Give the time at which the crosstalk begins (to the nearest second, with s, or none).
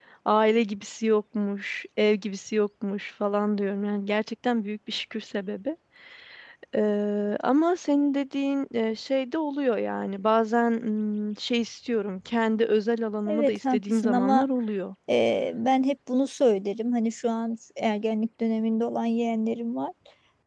13 s